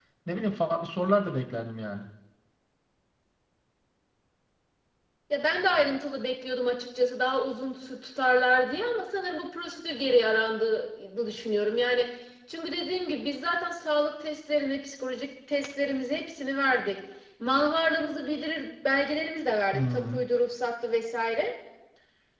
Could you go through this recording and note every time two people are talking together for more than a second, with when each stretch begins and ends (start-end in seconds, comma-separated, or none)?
none